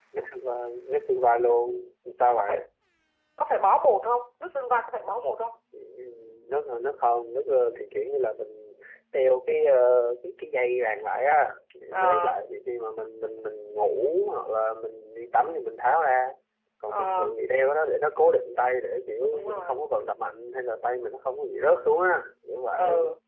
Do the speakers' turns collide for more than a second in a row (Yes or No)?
No